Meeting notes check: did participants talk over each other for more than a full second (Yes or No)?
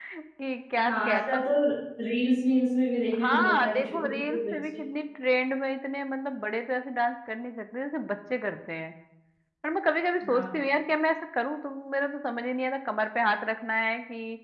Yes